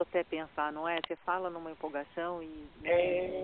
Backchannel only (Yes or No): No